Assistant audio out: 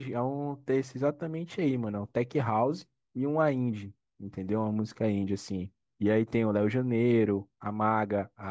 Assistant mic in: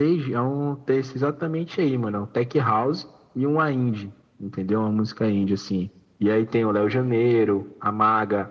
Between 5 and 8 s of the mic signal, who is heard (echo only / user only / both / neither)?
echo only